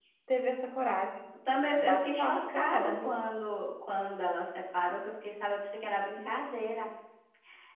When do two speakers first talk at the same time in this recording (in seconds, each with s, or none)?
1.8 s